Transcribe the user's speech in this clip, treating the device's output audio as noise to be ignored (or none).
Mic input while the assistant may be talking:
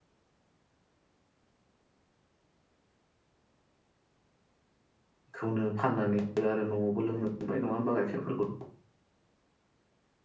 खौनो फाननानै आरो न'आवबो लोंनो मोनबाय नङा होमबा गाइखेरफोरखौ।